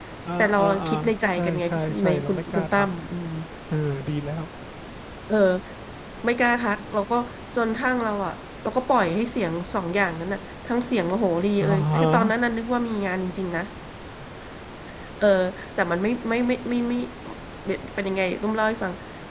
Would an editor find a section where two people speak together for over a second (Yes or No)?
Yes